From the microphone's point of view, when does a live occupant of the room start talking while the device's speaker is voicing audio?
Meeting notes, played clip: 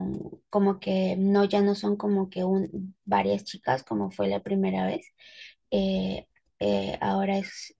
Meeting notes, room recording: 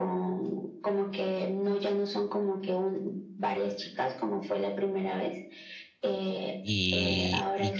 6.6 s

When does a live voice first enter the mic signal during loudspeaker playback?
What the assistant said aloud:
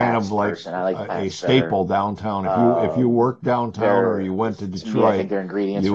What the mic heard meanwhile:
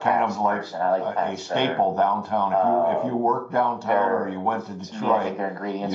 none

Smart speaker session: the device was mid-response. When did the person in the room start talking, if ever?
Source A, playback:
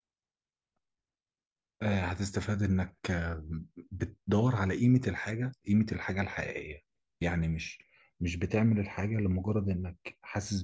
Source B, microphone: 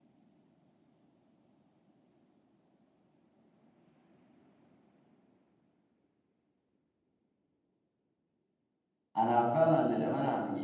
9.2 s

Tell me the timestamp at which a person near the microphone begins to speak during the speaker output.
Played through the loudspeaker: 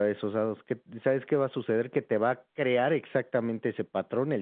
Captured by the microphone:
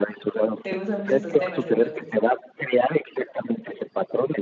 0.6 s

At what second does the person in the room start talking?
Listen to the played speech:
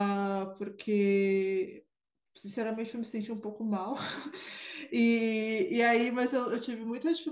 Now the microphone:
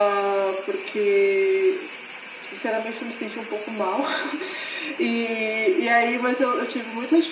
none

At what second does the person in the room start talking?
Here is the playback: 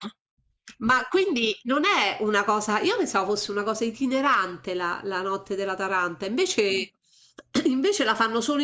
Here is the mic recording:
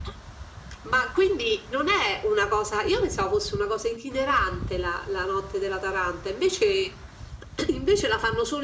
none

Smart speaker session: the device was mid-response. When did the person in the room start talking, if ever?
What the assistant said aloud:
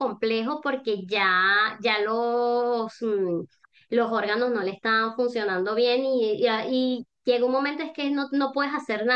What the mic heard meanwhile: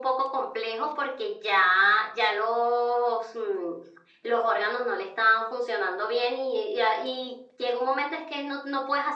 none

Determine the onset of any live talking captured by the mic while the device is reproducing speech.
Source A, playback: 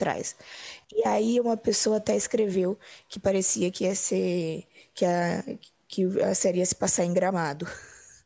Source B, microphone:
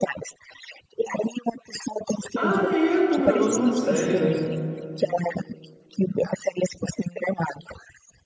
2.3 s

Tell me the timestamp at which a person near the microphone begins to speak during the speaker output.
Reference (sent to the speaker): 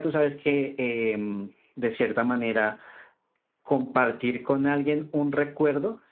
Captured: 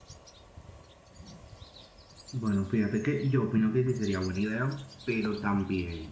2.3 s

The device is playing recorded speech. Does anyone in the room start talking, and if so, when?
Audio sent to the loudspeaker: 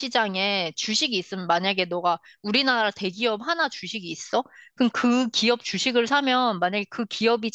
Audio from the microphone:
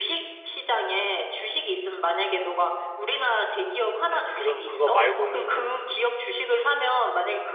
4.1 s

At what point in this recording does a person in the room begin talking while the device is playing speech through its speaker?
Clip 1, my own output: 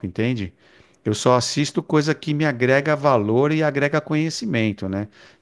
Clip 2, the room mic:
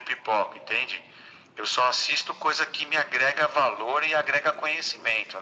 none

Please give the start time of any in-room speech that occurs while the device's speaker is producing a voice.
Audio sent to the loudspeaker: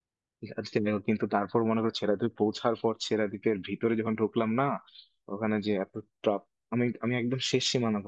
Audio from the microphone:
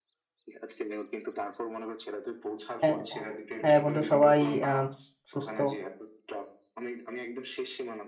2.8 s

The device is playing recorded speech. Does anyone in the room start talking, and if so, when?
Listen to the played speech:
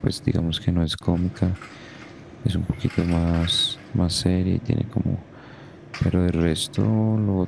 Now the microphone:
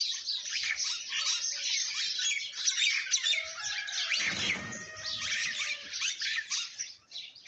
none

